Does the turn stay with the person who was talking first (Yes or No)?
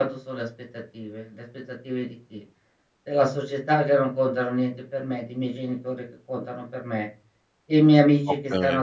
Yes